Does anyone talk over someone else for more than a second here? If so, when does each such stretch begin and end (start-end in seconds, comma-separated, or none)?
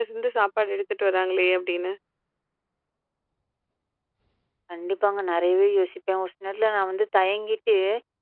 none